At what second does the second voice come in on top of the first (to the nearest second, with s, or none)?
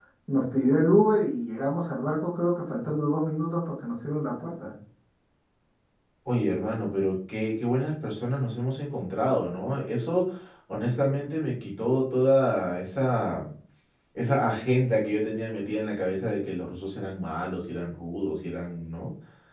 none